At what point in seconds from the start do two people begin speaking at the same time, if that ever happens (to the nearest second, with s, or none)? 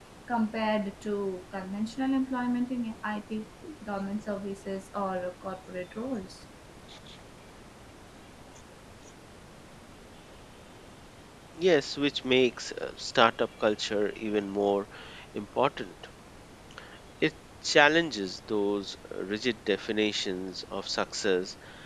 none